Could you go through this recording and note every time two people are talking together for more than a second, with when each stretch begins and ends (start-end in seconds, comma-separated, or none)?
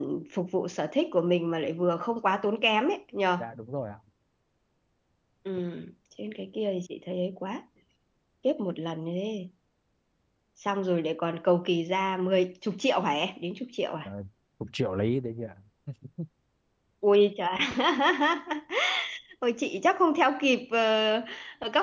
none